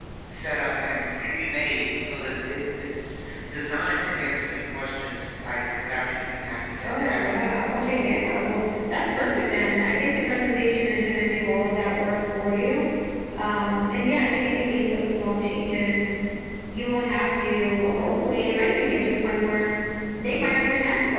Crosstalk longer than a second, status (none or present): present